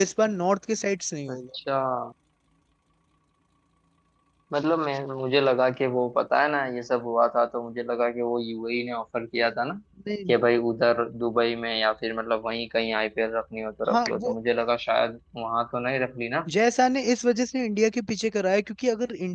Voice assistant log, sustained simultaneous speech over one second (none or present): none